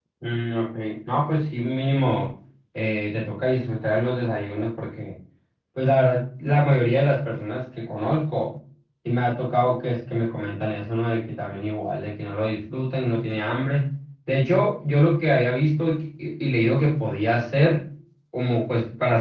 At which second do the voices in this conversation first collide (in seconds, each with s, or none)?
none